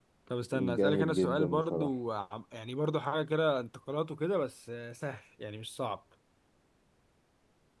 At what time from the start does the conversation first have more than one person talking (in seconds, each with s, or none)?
0.5 s